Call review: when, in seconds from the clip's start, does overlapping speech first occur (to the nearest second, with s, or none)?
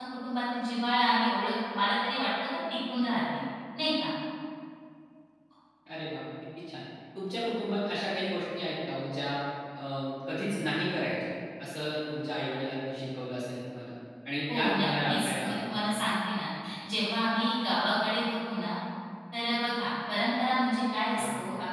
14 s